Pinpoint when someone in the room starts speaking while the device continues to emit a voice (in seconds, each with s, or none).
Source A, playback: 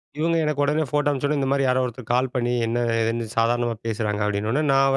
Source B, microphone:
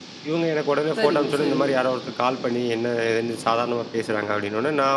1.0 s